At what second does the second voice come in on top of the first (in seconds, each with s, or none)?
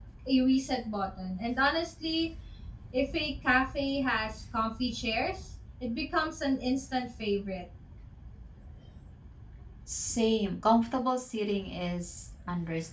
none